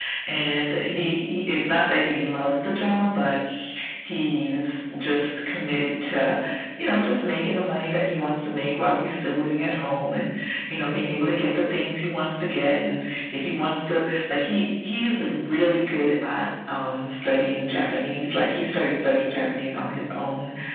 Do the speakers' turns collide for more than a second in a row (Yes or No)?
No